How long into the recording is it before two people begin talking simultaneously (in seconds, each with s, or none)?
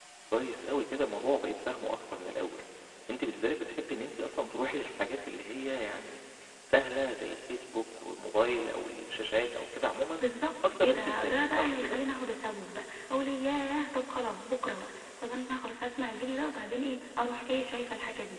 10.6 s